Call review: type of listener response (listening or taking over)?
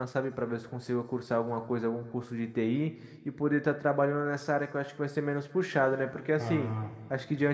listening